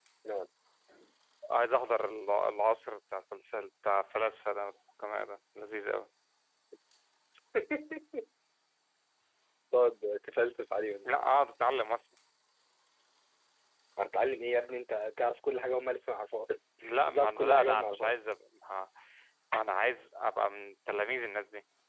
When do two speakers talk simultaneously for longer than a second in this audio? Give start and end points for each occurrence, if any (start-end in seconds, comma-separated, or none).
16.9-18.2